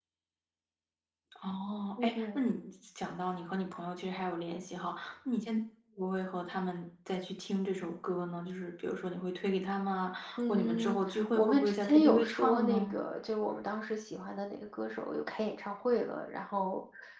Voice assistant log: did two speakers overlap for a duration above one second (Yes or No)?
Yes